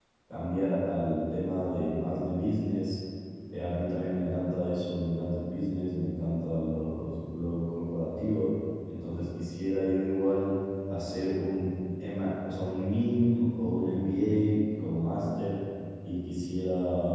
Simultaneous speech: No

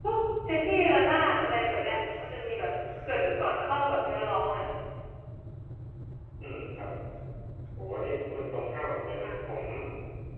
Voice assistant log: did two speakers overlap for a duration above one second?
No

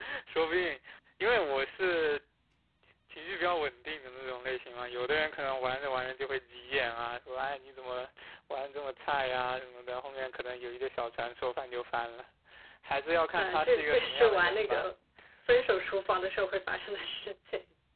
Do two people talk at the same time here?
Yes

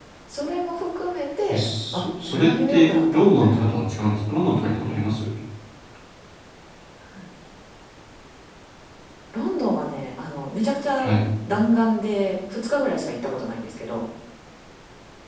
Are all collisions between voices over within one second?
No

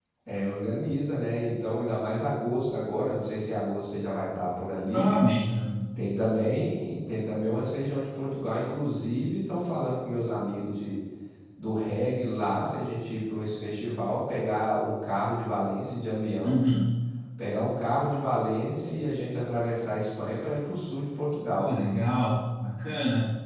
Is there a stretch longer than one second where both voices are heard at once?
No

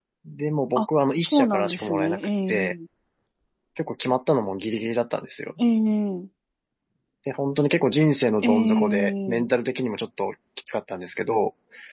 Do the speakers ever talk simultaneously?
Yes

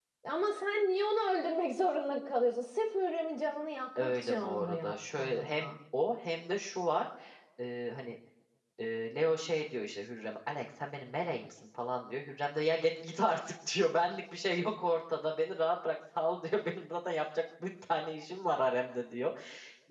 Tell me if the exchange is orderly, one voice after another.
No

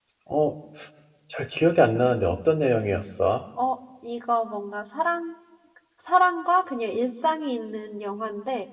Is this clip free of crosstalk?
Yes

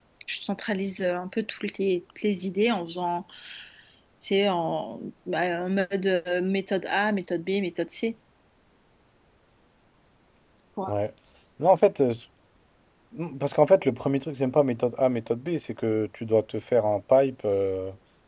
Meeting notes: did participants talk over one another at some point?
No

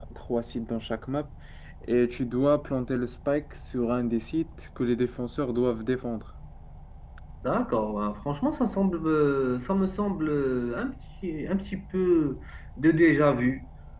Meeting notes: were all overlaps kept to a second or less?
Yes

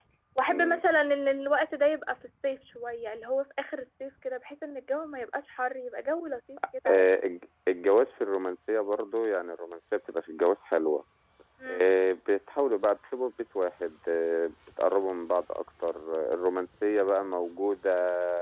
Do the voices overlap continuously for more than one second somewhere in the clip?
No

